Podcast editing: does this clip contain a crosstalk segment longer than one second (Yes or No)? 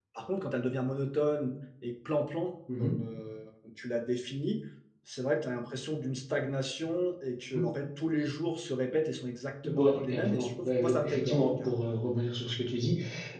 Yes